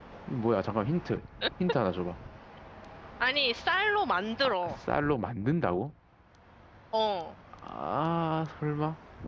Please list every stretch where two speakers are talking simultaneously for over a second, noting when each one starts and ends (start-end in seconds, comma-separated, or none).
none